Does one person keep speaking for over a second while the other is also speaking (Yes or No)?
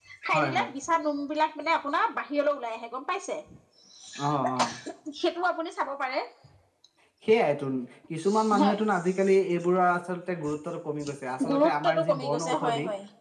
Yes